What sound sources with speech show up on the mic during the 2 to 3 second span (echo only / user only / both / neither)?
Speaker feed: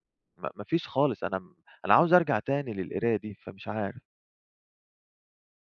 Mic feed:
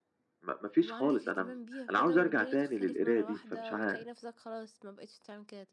both